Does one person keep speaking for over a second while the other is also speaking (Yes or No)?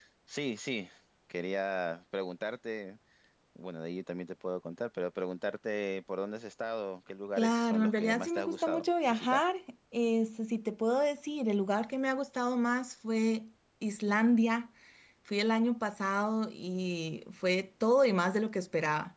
Yes